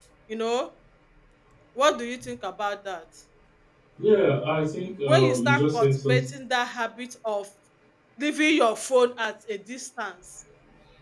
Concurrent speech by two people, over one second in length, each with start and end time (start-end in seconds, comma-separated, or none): 5.1-6.3